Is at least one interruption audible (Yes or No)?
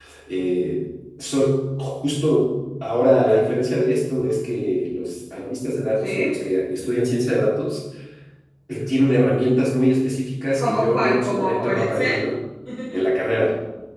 Yes